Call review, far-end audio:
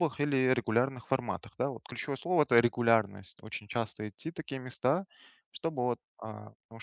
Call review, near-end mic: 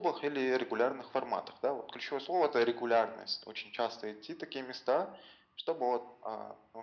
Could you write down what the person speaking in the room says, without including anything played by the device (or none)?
none